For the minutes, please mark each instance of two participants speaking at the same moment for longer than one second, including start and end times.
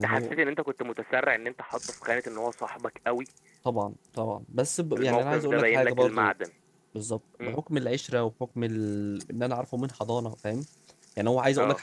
5.0-6.3

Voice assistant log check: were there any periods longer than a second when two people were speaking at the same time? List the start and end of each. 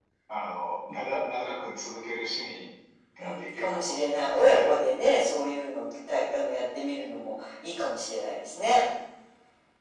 3.2-4.7

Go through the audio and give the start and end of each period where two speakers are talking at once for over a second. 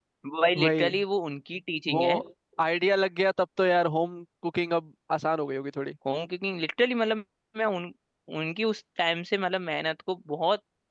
none

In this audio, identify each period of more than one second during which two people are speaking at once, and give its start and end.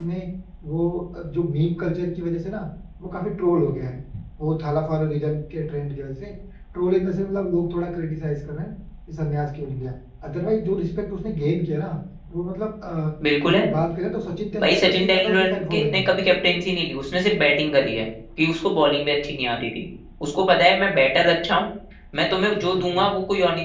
14.6-16.1

